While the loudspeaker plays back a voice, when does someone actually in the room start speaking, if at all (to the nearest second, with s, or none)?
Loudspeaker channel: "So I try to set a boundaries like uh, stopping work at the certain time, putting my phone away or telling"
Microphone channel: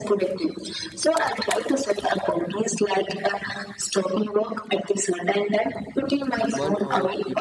7 s